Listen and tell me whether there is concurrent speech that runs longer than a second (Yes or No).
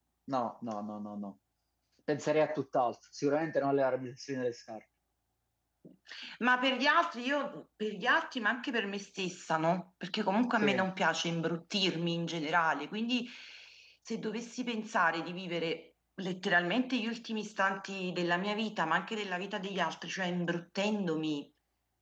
No